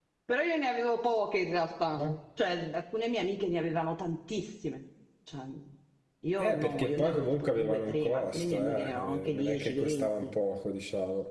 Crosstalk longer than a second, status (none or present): present